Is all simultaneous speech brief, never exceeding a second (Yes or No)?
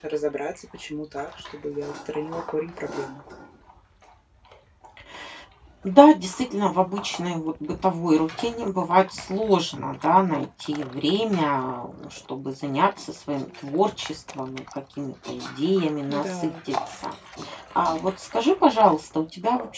Yes